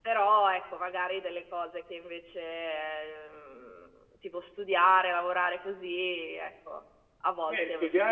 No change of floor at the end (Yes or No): No